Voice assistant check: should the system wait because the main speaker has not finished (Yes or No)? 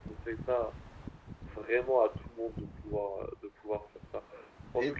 Yes